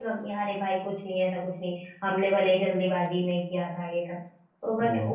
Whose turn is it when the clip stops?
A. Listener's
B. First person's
B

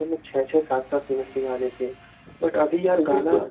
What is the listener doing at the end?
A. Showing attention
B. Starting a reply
A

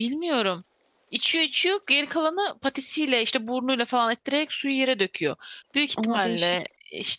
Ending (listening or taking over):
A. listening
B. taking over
A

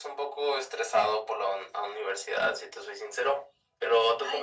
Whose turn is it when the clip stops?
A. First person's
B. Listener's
B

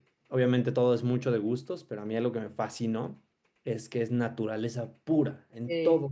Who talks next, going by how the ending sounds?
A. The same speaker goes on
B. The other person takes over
A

